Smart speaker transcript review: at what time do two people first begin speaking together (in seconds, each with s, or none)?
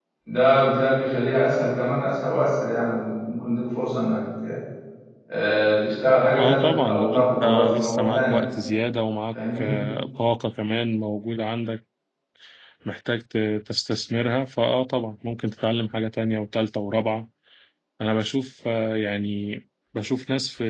6.4 s